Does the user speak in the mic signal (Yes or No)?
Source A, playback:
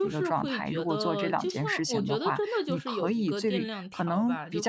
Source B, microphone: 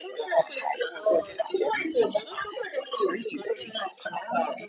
No